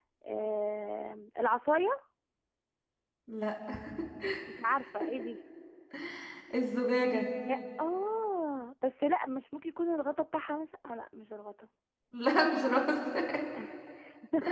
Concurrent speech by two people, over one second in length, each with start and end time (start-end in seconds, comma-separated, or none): none